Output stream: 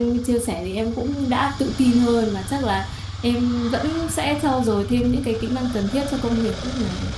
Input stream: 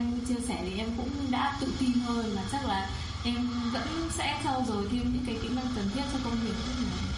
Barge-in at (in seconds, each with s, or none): none